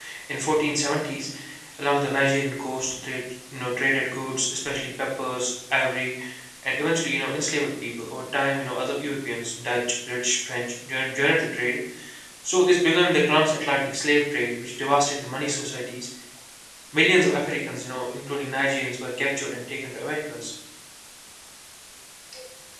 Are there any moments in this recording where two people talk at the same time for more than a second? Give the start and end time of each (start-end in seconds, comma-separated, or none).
none